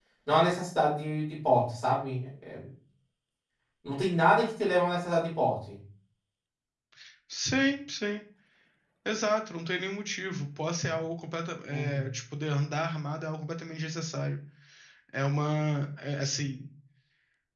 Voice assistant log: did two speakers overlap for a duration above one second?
No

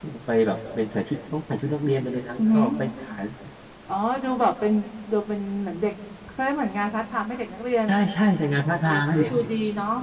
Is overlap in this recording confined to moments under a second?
Yes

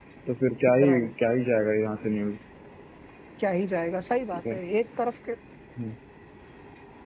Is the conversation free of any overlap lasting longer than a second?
Yes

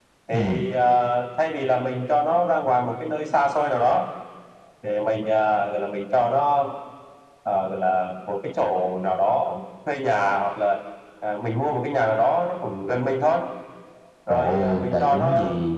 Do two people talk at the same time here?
Yes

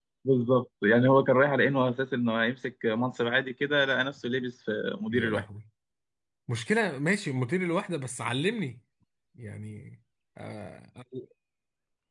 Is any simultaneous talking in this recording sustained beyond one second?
No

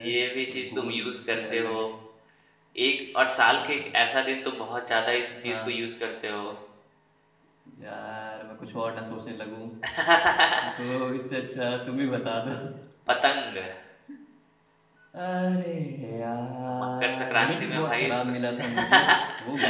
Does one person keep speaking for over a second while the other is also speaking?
Yes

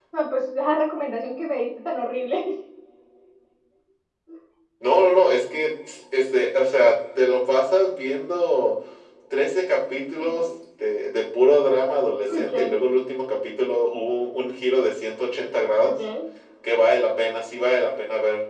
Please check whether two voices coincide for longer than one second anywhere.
No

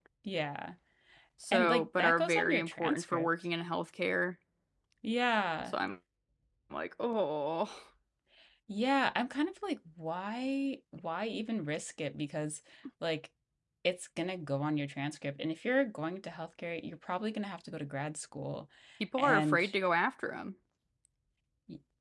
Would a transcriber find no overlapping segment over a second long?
No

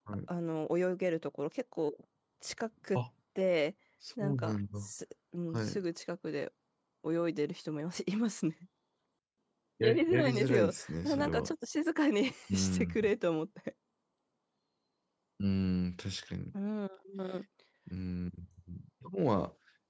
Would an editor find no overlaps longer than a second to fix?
No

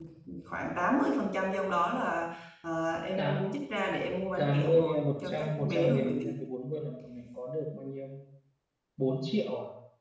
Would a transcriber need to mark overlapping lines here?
Yes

